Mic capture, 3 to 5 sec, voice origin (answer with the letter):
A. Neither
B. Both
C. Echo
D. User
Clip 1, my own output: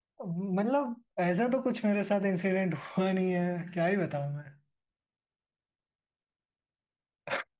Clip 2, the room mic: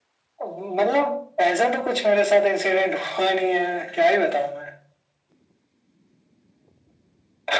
C